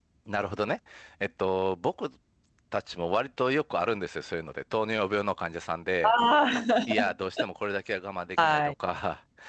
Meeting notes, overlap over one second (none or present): none